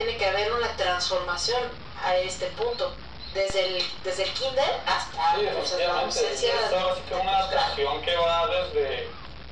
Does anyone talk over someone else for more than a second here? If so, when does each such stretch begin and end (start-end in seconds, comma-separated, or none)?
5.3-7.6